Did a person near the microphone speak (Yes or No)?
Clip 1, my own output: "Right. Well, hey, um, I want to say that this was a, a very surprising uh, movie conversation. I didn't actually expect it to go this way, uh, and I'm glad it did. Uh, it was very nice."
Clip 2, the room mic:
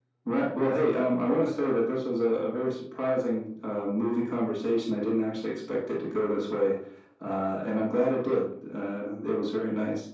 No